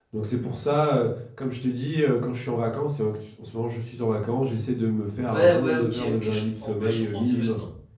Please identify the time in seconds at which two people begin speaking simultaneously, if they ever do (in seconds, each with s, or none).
5.2 s